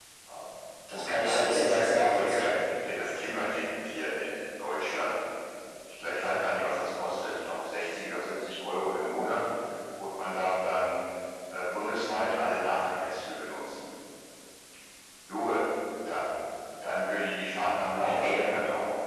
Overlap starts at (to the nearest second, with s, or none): 1 s